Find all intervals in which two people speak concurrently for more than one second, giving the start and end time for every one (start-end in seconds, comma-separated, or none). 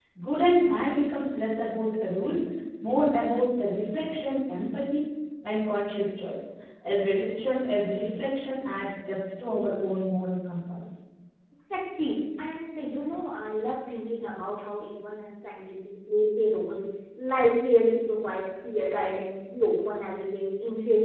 none